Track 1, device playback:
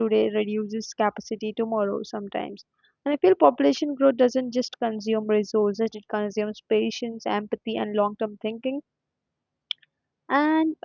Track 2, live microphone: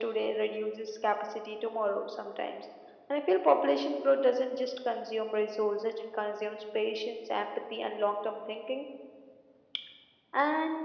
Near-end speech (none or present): none